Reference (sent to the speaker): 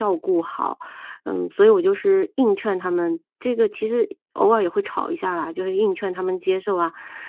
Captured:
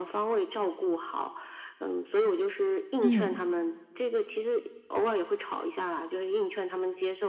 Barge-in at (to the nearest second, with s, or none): 3 s